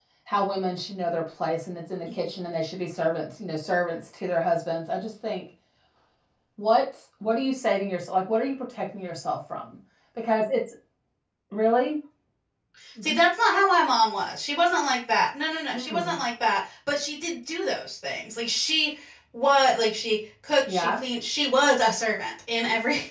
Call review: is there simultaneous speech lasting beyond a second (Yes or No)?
No